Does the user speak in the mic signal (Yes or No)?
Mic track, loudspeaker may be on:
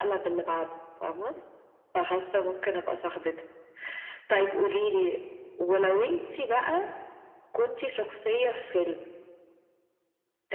No